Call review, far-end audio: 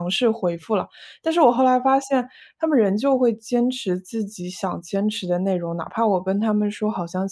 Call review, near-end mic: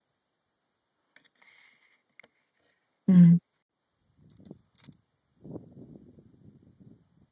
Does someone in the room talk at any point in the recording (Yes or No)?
Yes